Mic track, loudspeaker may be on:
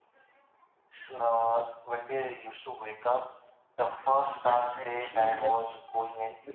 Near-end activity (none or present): present